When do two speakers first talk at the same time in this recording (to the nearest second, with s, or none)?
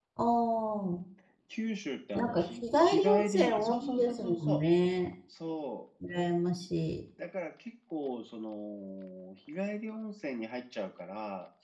2 s